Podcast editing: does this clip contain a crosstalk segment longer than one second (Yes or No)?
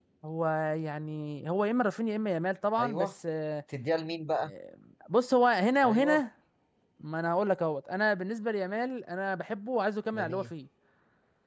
No